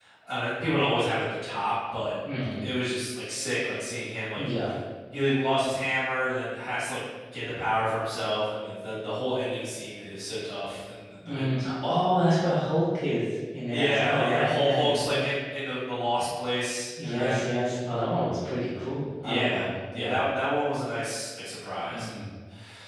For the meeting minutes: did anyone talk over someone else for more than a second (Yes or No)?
Yes